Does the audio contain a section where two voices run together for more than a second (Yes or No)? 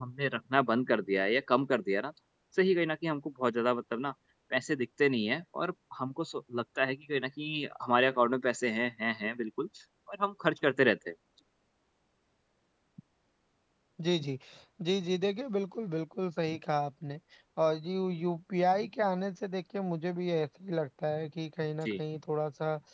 No